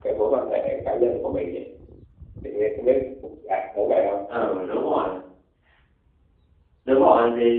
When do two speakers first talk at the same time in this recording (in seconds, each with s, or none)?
none